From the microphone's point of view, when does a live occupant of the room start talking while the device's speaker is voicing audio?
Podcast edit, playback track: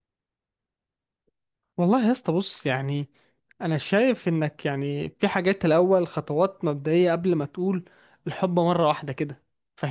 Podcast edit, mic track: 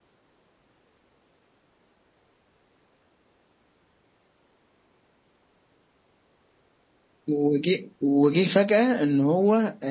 7 s

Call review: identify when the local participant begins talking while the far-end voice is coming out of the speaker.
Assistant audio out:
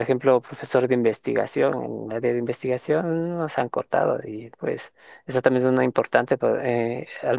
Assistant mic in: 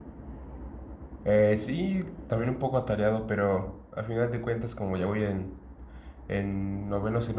1 s

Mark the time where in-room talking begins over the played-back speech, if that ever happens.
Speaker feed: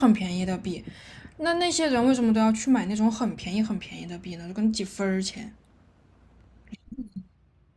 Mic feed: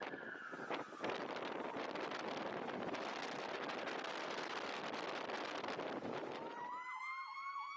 none

